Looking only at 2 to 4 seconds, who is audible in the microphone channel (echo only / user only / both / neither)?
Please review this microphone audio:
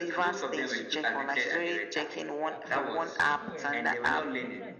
both